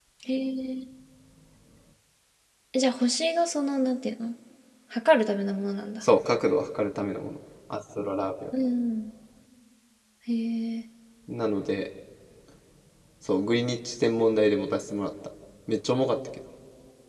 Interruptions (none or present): none